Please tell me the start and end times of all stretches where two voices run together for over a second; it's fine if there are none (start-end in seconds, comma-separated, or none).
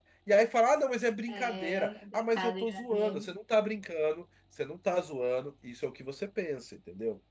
1.3-3.3